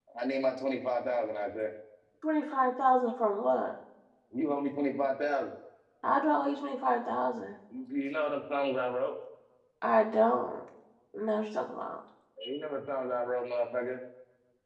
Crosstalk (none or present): none